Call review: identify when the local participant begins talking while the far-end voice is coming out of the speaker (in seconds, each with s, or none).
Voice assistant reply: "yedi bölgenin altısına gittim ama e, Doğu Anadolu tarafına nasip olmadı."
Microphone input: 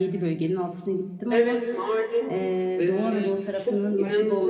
1.3 s